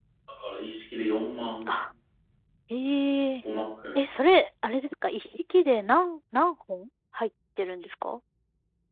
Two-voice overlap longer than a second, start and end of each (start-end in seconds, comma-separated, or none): none